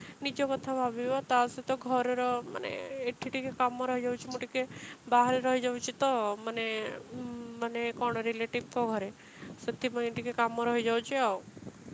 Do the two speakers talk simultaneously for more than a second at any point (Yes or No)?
No